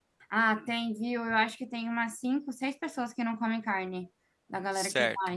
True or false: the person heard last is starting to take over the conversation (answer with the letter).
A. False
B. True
B